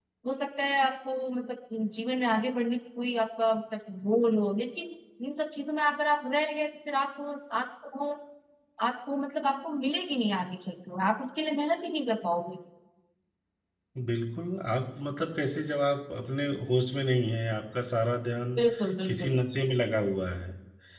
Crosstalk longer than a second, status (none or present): none